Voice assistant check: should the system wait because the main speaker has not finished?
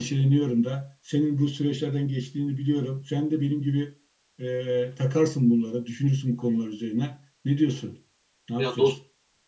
No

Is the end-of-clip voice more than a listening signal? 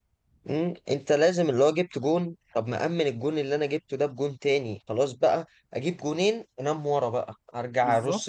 No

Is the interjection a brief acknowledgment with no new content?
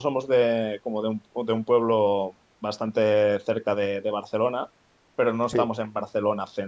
Yes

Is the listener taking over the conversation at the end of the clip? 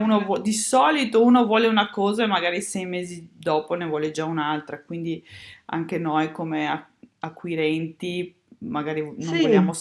No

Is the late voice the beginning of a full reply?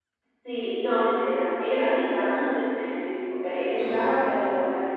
No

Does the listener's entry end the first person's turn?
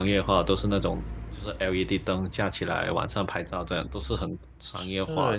Yes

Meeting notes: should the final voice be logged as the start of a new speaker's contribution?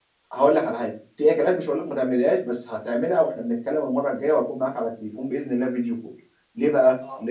No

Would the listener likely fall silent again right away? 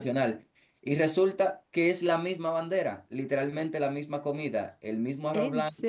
Yes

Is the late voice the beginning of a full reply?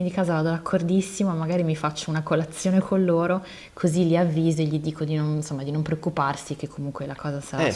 Yes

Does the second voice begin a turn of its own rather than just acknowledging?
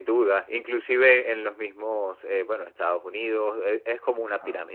No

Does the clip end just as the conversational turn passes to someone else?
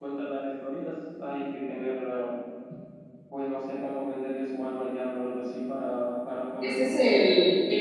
Yes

